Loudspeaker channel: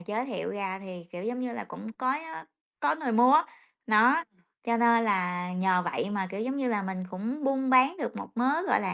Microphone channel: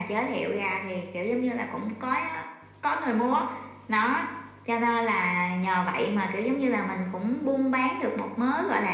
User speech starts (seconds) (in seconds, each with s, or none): none